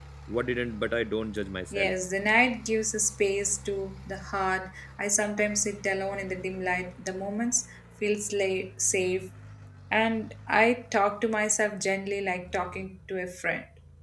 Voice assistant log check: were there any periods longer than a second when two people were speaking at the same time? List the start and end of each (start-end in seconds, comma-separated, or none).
none